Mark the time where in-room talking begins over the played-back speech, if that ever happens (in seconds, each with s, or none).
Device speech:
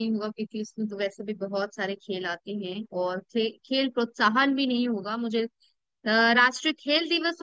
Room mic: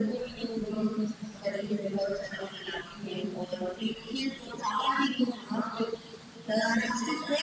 none